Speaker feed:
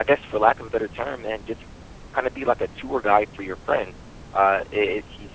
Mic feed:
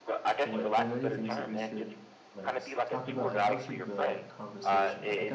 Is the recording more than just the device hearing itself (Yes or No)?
Yes